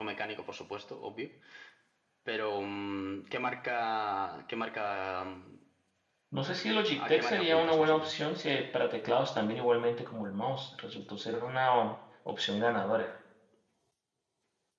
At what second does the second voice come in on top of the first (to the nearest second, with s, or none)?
7 s